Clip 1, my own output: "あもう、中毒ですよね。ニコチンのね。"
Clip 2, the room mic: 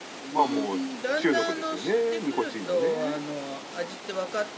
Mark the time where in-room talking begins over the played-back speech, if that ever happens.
0.4 s

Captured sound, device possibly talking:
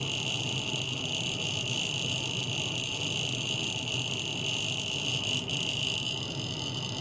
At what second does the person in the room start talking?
none

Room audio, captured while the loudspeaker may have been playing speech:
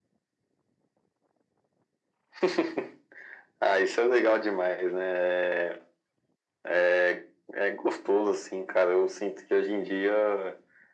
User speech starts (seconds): none

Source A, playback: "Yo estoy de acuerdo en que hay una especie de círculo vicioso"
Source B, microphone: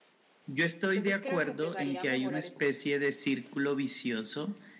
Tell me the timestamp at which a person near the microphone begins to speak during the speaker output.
0.9 s

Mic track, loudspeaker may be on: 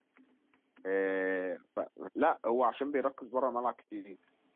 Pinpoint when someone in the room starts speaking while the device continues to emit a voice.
0.8 s

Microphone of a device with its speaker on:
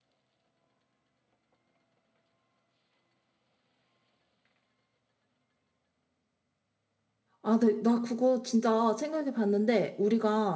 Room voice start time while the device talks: 7.4 s

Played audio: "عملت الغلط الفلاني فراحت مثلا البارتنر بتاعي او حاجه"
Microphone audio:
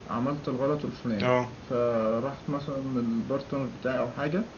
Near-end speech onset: 1.2 s

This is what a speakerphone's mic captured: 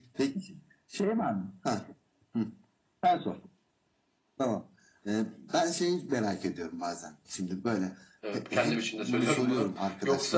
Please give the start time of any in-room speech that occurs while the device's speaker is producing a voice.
8.2 s

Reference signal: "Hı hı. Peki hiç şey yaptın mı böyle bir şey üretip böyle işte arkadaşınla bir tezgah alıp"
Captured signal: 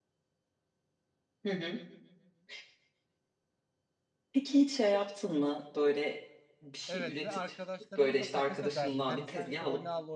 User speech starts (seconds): 6.9 s

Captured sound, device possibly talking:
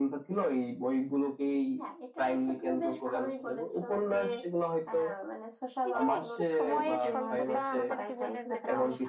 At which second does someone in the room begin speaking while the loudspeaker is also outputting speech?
5.9 s

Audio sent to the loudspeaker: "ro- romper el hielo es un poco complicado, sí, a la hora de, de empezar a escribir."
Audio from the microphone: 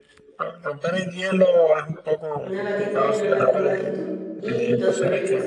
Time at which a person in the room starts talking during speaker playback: 2.4 s

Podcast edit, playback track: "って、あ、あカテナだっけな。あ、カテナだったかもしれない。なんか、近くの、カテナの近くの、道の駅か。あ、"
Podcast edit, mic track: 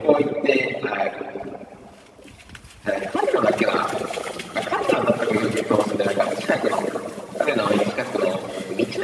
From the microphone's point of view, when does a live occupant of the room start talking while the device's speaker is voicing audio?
none

